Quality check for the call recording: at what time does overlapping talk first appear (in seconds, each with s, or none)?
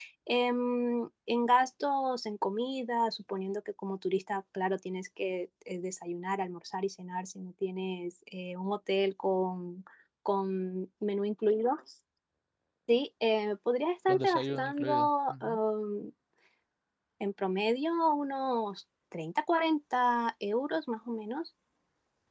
14.1 s